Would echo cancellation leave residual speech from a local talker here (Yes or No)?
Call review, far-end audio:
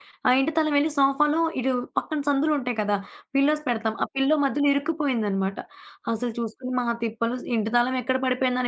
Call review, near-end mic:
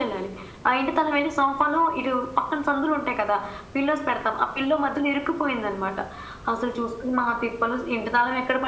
No